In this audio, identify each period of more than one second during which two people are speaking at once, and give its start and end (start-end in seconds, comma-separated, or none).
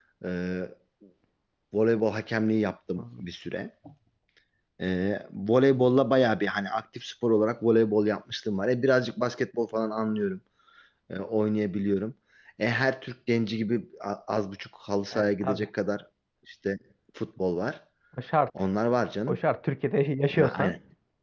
none